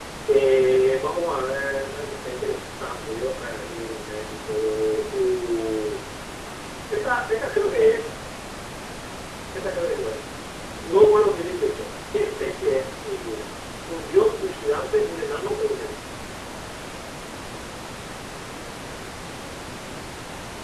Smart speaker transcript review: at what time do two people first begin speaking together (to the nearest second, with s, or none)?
none